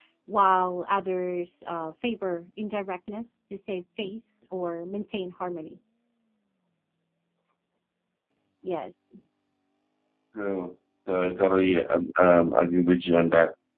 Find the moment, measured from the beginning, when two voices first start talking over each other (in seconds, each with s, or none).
none